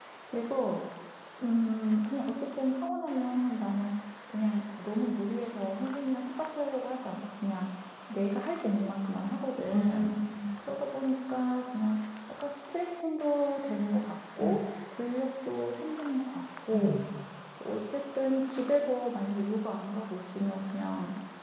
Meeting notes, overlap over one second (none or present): none